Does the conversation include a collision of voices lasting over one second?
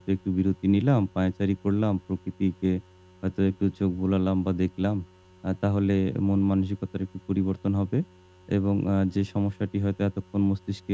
No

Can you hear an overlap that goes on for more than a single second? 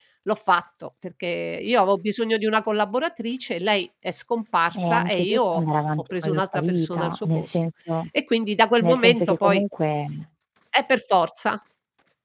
Yes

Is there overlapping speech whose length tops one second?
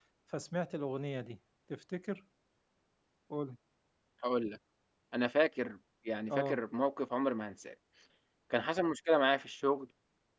No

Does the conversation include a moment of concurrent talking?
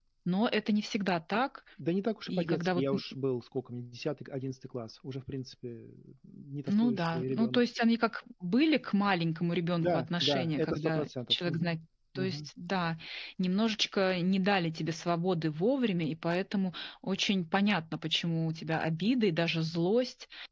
Yes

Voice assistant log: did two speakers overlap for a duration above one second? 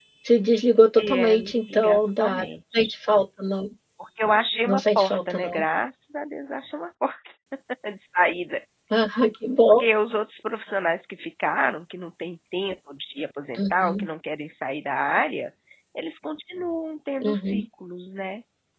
Yes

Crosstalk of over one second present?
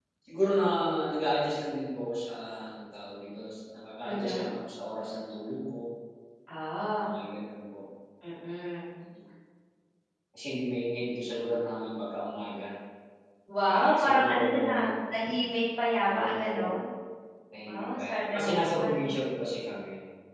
Yes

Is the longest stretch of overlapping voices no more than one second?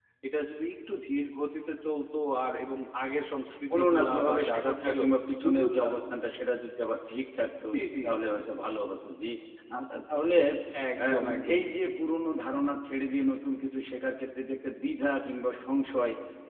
No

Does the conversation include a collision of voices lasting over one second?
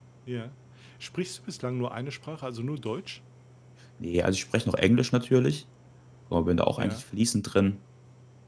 No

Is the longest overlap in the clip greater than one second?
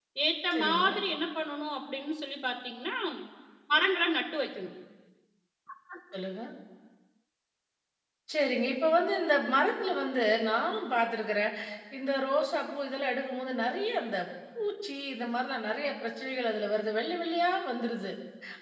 No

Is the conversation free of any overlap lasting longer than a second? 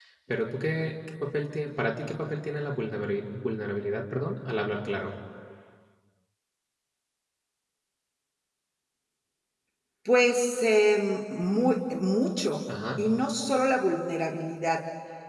Yes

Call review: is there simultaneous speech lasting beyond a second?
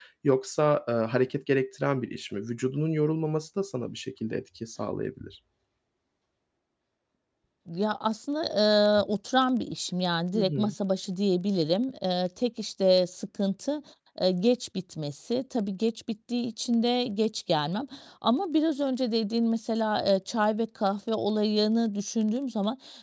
No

